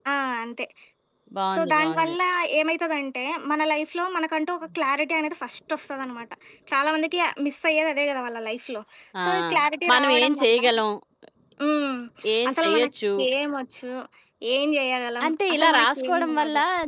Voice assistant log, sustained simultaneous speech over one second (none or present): present